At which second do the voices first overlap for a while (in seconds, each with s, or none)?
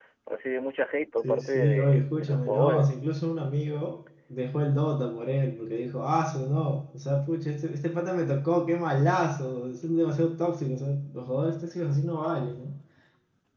1.2 s